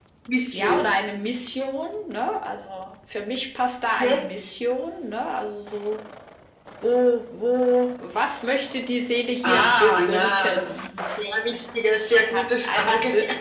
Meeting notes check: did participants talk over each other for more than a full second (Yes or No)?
Yes